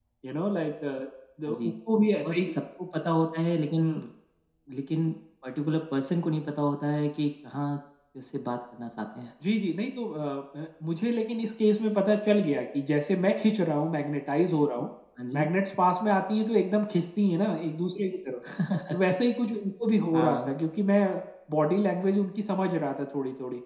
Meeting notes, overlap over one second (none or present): none